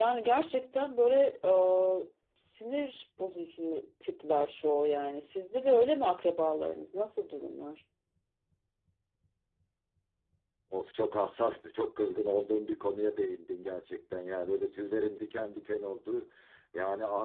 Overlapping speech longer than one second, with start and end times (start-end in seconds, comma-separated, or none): none